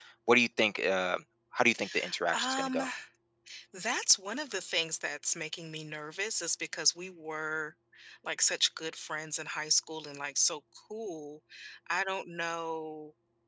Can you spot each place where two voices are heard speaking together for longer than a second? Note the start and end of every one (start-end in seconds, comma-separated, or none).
none